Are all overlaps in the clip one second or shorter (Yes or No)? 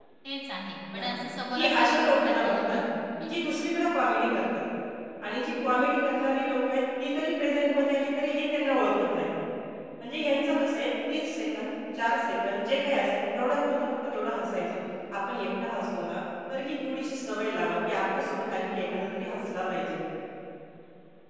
No